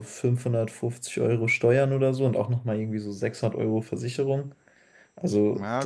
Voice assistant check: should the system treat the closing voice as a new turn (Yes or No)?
No